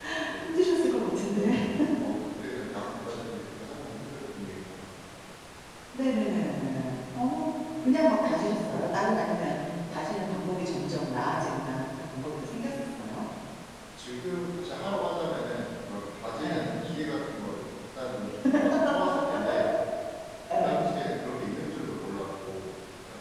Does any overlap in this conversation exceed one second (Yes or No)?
No